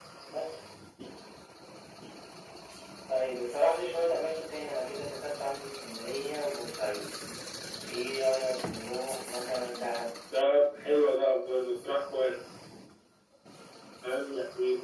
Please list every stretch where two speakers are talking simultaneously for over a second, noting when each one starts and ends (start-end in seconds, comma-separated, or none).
none